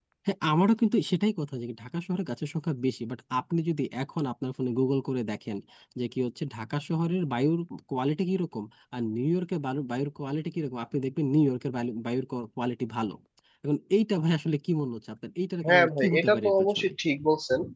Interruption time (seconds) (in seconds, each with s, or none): 15.6 s